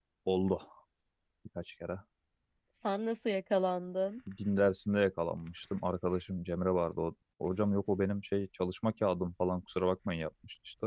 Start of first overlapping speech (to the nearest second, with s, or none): none